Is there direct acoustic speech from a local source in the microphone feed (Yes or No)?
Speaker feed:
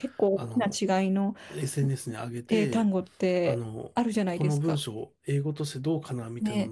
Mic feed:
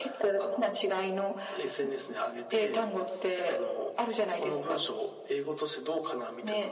No